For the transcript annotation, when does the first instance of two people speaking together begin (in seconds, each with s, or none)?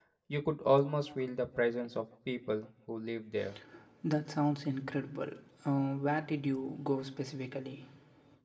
none